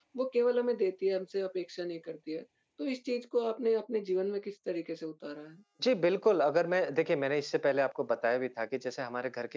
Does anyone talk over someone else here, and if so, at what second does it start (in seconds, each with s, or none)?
none